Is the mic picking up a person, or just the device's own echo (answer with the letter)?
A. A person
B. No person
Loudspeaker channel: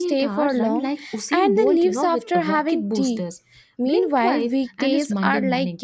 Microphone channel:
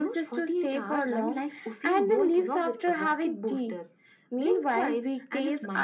B